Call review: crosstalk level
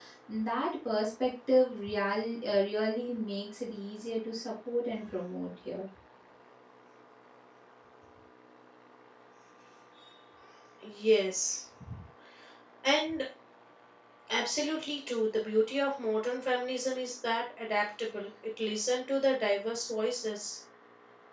none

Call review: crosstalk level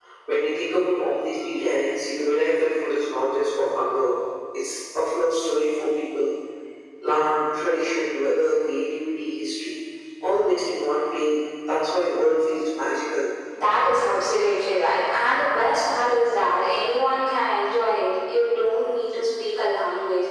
none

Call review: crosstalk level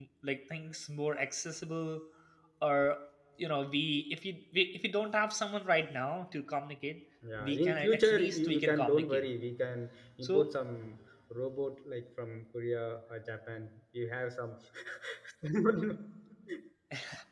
present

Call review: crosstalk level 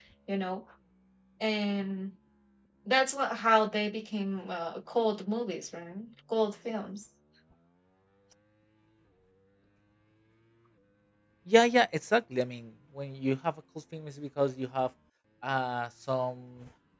none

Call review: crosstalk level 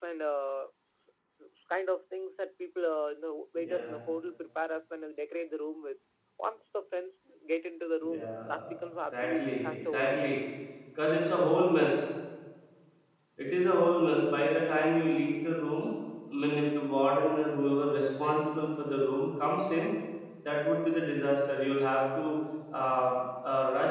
present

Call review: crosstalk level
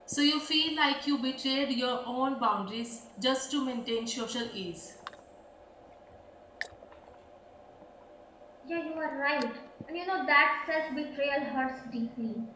none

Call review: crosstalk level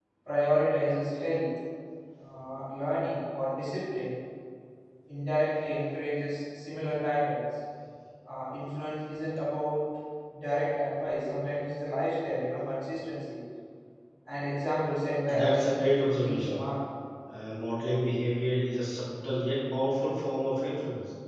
present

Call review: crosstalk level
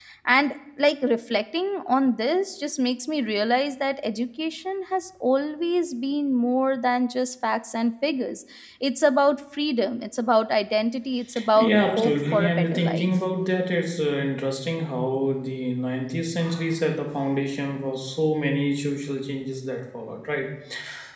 present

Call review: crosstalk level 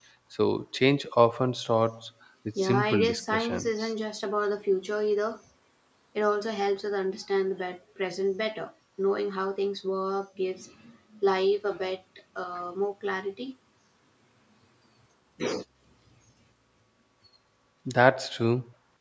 present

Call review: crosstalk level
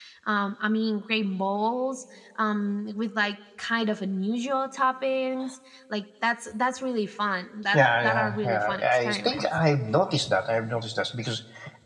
present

